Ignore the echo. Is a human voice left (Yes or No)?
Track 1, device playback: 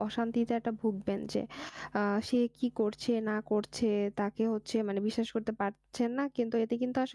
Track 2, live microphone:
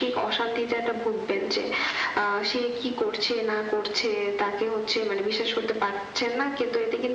No